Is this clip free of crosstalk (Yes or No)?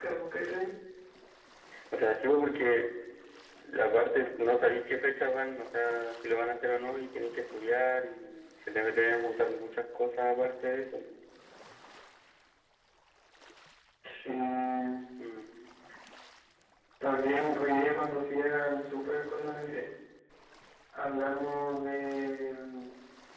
Yes